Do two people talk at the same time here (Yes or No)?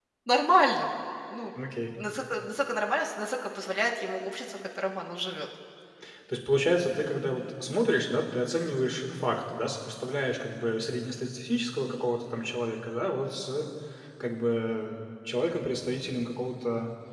No